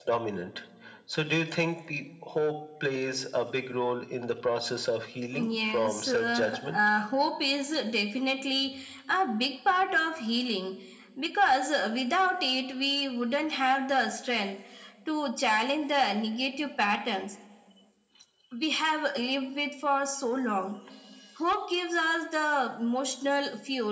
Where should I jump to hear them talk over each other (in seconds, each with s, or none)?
5.3 s